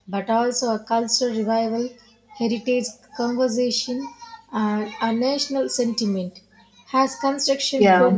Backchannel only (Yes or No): Yes